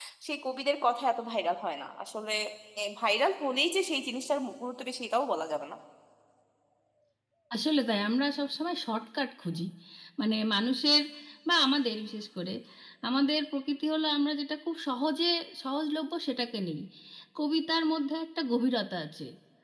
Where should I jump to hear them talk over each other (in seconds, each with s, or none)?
none